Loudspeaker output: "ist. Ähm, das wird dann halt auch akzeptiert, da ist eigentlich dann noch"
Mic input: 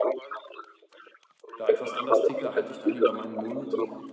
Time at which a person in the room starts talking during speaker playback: 2 s

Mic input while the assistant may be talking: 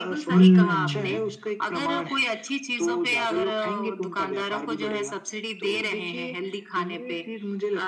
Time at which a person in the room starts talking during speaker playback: 0 s

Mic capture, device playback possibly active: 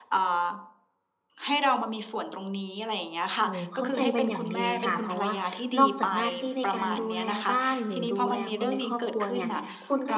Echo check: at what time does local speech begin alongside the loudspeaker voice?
3 s

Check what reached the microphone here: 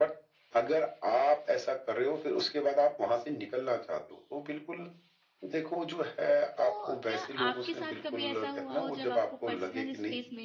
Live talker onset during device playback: 7 s

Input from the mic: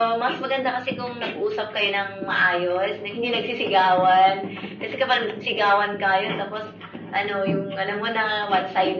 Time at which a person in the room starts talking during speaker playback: none

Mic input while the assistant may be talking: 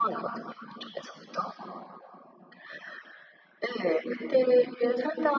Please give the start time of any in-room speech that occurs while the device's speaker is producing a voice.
none

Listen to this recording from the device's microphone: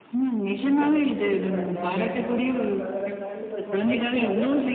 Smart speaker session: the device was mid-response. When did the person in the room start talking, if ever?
1 s

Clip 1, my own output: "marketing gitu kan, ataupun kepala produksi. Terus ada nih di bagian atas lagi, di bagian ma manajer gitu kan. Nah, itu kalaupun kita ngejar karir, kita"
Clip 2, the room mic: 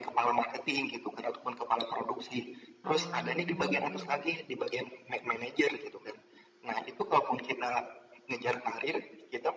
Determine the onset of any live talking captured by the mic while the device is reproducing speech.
3 s

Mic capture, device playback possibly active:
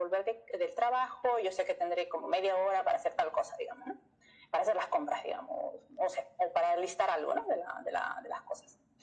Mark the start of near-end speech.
none

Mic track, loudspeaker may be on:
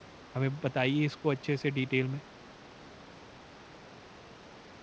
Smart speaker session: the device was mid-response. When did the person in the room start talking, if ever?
0 s

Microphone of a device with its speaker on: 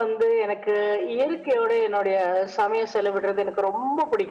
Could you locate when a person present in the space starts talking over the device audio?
none

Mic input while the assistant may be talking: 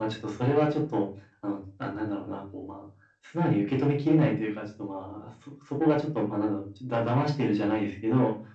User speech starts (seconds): none

